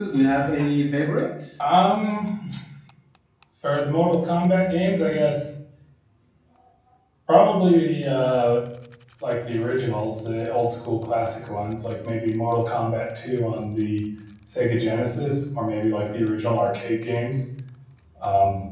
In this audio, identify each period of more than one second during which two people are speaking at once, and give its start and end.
none

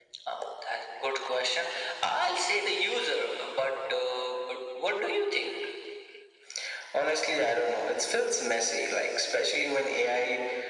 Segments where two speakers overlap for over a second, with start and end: none

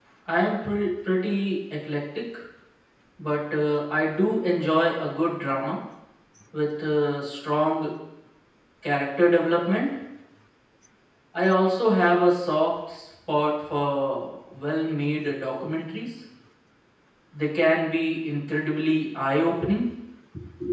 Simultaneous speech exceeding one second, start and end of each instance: none

